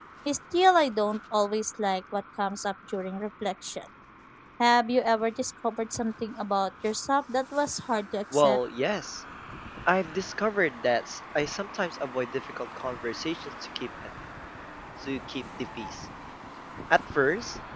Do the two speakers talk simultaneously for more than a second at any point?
No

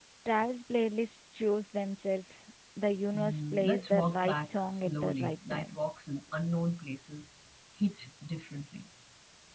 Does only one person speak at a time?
No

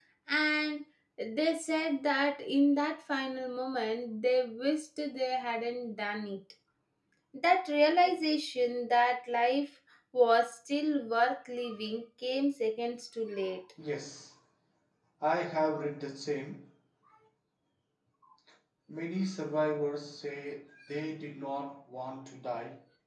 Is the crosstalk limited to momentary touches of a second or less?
Yes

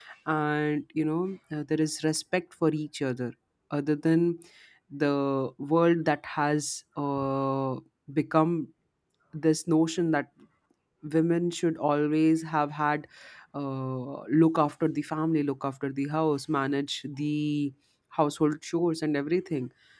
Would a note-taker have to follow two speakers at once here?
No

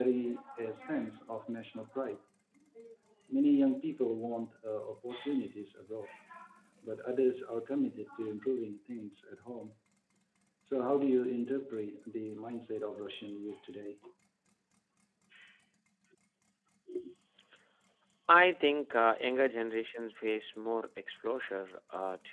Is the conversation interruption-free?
Yes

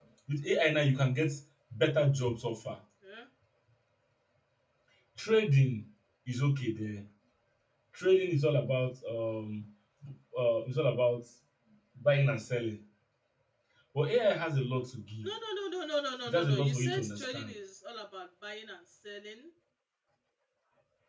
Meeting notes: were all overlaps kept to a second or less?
No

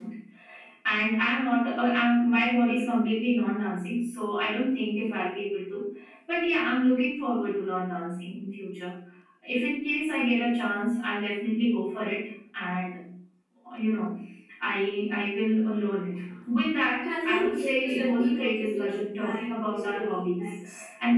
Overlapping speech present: Yes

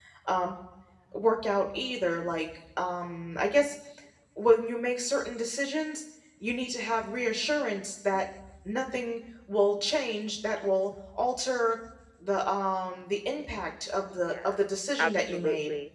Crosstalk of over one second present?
Yes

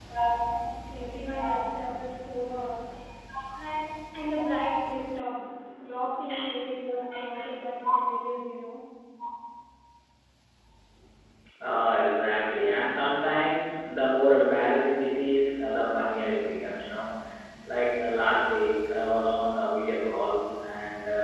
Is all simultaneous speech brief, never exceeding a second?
Yes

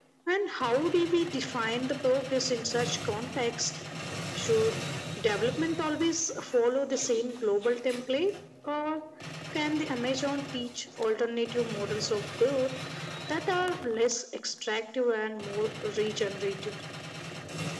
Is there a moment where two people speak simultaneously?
No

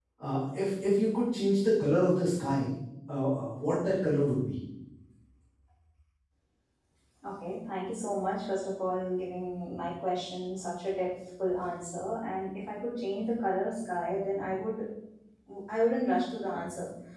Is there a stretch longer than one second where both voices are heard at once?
No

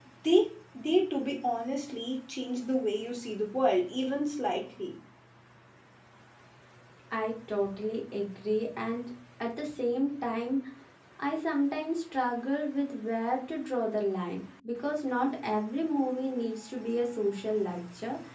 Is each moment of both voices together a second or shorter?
Yes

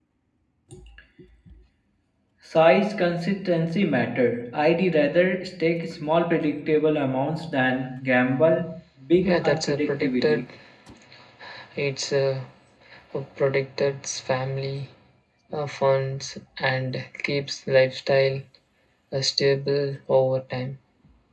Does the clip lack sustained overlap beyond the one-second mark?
No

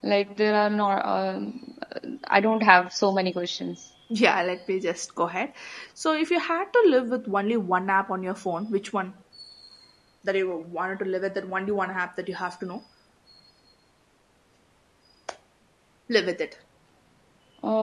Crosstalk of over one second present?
No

